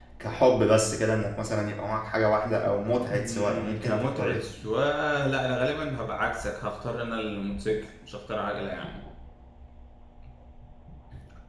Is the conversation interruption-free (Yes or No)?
No